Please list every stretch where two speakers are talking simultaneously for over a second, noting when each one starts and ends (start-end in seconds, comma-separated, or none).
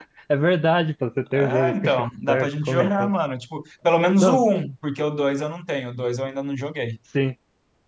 1.3-3.1